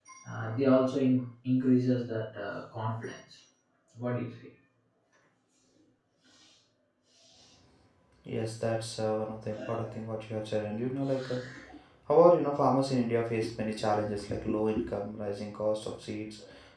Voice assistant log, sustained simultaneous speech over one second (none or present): none